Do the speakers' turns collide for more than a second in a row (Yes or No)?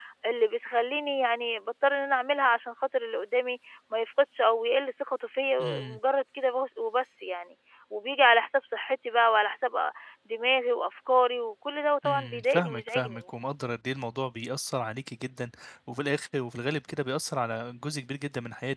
Yes